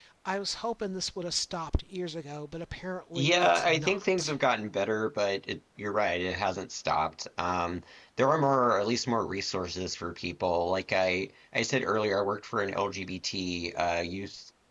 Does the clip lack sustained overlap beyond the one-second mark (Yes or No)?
No